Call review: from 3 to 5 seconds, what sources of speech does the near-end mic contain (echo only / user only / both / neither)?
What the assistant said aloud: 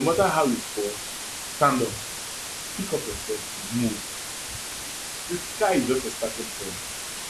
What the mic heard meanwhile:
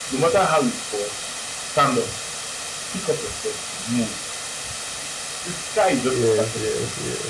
echo only